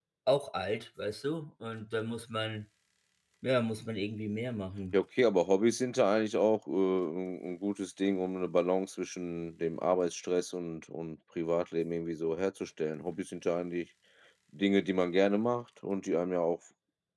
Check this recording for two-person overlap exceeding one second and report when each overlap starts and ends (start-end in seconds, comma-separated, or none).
none